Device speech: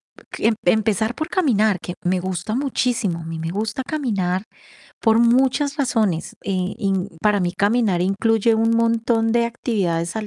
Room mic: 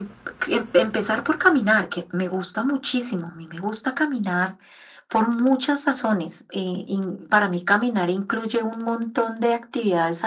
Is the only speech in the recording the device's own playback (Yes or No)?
Yes